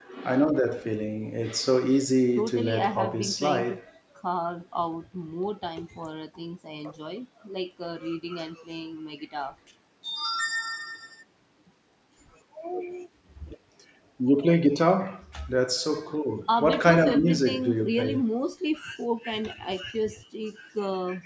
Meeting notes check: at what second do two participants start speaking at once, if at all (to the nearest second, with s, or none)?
2 s